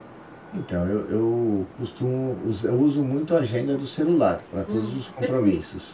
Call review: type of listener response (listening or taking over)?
taking over